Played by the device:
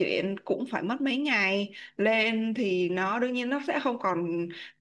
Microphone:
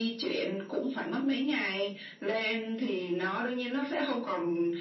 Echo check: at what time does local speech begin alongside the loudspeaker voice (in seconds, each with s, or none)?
none